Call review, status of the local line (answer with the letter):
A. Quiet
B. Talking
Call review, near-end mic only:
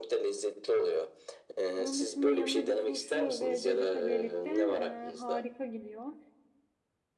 B